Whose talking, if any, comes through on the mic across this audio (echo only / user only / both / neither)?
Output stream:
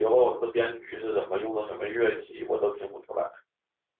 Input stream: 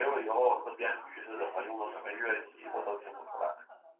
both